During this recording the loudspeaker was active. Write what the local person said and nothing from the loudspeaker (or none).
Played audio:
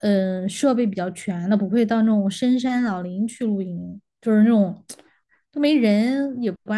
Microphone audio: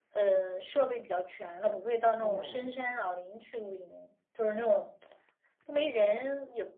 哦。